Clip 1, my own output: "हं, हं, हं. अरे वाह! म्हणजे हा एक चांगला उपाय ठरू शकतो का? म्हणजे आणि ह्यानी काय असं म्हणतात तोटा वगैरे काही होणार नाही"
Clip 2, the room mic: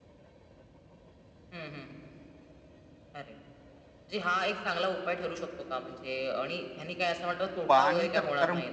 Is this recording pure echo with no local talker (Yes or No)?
No